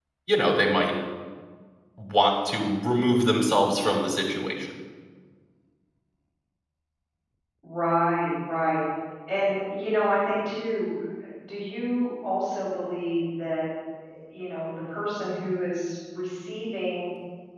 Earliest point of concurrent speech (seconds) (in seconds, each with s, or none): none